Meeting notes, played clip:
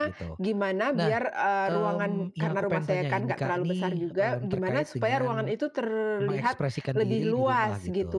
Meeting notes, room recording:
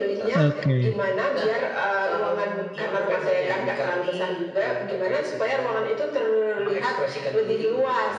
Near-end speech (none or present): present